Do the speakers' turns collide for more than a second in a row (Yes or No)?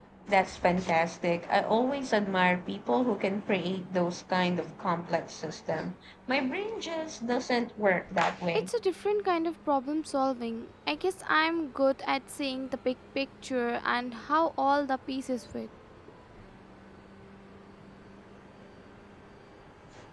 No